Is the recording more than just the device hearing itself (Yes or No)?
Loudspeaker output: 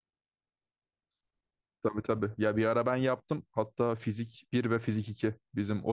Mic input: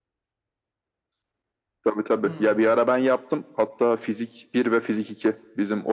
Yes